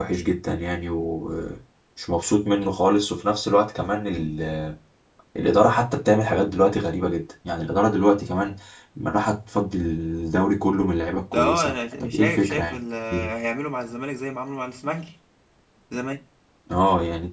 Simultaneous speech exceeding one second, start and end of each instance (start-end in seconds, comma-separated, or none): 11.2-12.8